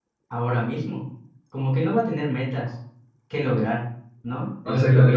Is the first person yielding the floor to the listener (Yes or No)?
Yes